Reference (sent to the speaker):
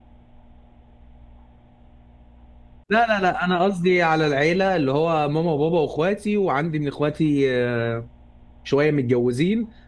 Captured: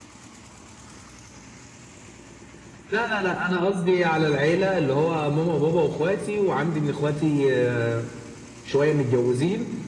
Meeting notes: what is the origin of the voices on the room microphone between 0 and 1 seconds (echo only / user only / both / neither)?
neither